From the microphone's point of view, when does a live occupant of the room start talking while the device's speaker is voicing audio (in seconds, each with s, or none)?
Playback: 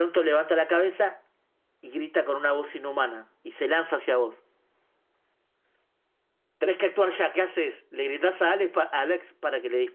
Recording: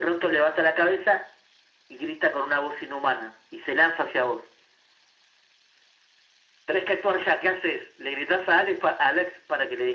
none